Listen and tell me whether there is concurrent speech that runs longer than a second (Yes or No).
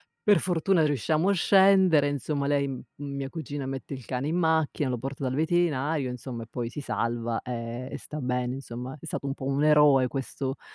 No